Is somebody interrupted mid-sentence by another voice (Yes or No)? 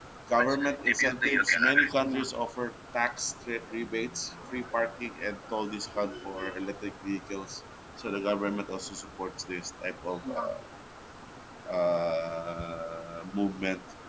Yes